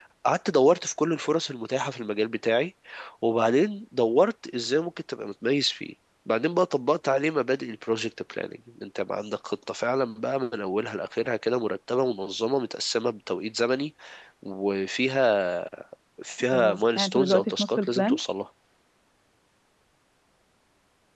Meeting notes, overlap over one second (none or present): present